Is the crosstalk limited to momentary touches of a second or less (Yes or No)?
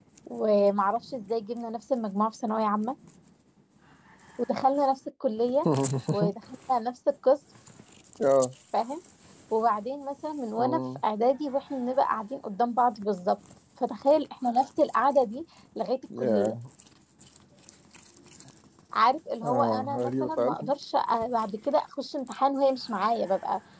No